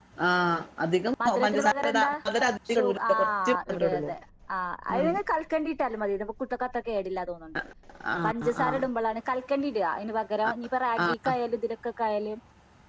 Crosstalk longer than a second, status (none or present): present